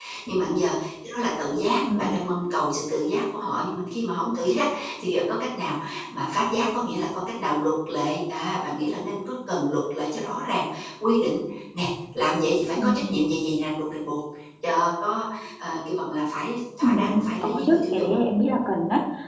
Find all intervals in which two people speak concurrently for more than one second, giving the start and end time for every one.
16.8-18.2

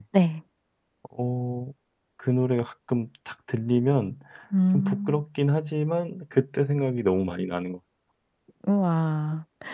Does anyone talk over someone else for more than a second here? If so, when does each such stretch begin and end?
none

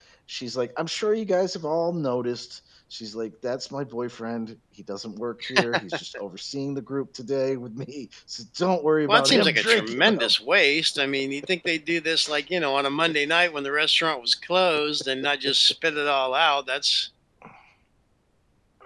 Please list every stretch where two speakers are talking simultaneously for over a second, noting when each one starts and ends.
9.1-10.3

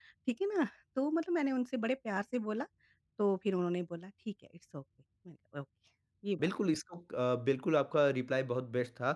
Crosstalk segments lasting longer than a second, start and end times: none

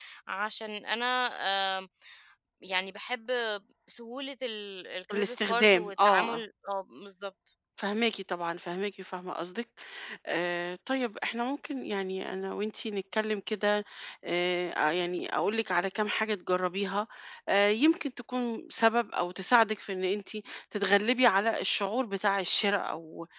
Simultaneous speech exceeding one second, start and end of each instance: 5.1-6.4

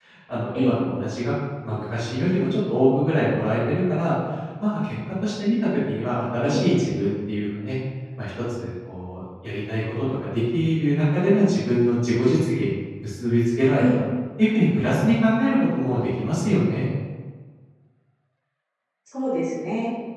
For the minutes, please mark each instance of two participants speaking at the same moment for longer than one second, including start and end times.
none

